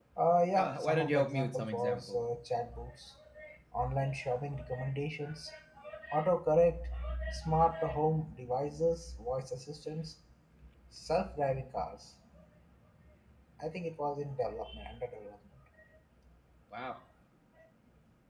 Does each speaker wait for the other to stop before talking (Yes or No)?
No